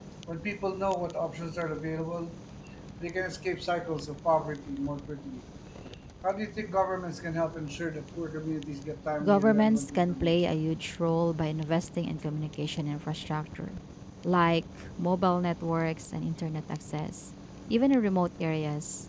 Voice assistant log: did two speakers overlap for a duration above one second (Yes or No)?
Yes